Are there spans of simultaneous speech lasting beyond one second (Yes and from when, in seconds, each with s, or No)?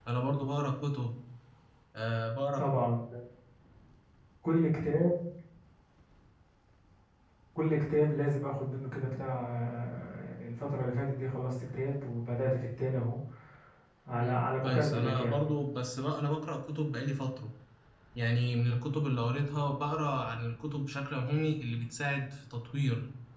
Yes, from 14.2 s